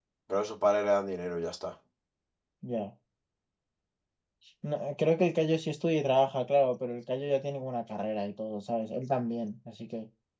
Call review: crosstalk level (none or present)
none